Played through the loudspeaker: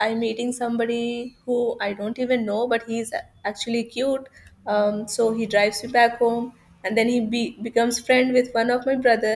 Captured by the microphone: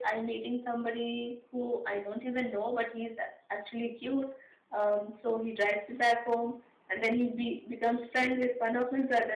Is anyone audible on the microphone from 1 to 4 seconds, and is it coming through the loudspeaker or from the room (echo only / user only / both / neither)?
echo only